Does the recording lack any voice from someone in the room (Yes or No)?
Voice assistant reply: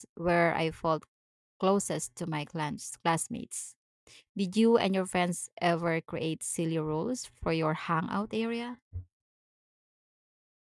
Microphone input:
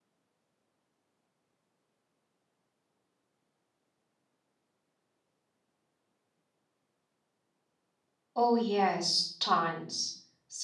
No